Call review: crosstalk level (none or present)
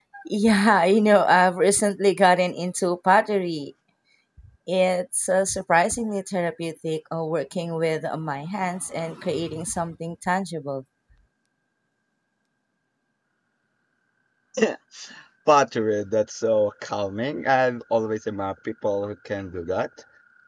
none